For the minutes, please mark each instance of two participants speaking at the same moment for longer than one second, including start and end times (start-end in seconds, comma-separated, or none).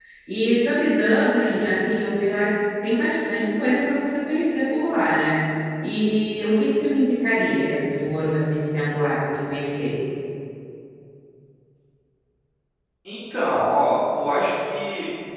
none